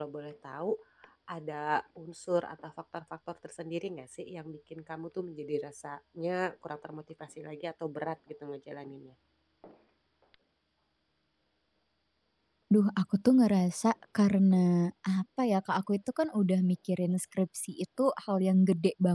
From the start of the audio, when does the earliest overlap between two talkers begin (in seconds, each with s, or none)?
none